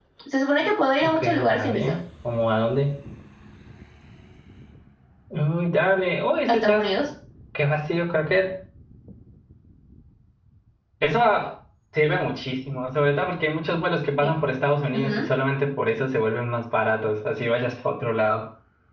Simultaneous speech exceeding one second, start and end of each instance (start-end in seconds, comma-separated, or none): 0.6-1.9